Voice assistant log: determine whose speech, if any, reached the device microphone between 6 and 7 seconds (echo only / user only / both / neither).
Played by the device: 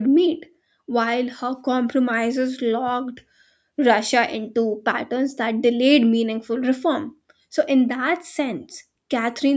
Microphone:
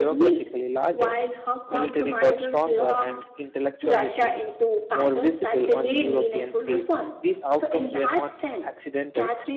both